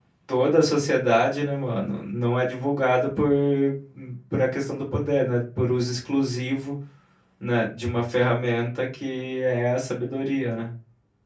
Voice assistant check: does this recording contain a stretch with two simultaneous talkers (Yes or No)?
No